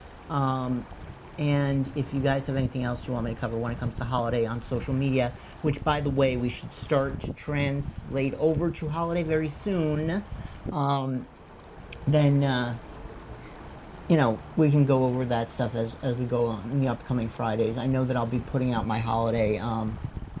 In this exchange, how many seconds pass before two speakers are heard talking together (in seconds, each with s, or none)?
none